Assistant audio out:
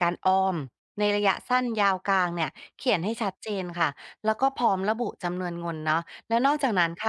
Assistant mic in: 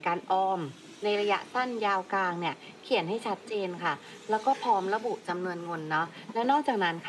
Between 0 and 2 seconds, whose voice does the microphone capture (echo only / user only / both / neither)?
echo only